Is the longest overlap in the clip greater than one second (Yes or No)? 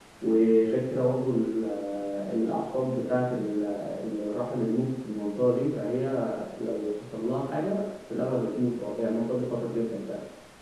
No